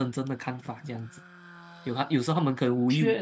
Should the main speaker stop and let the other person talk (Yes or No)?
No